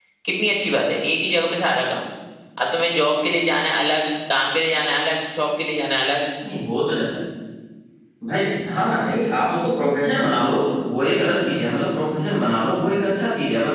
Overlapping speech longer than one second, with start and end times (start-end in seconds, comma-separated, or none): none